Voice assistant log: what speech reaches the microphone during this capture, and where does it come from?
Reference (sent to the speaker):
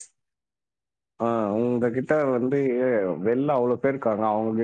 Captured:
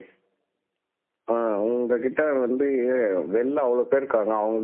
echo only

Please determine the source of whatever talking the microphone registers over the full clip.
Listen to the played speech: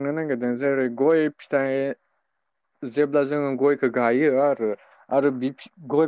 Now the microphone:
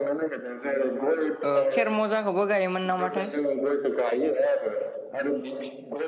both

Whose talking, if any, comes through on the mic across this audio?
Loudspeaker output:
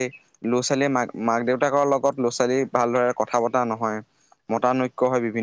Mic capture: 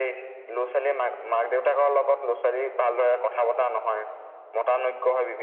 echo only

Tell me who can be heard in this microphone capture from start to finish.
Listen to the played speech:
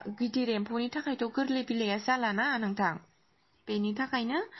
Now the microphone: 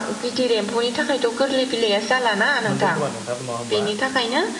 both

